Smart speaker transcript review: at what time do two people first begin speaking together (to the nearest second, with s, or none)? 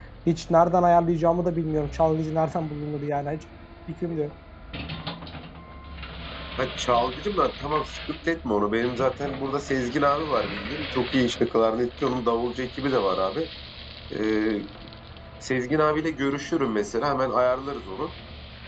none